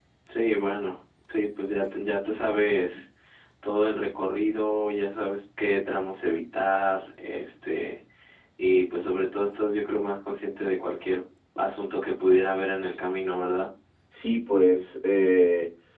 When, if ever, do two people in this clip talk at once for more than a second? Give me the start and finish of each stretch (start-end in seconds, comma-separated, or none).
none